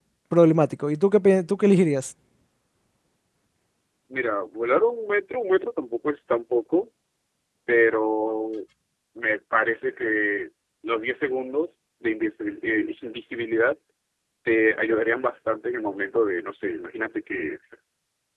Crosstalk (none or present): none